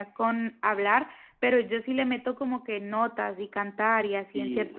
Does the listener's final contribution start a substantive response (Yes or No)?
Yes